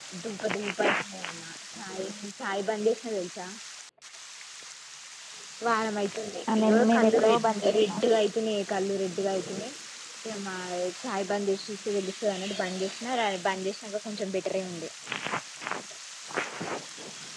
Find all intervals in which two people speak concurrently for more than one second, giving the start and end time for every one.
6.6-8.0

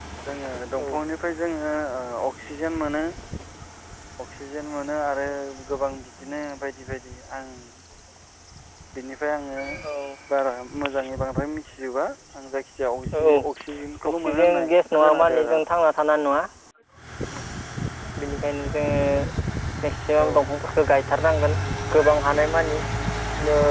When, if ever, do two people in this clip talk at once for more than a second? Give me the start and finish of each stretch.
14.2-15.6

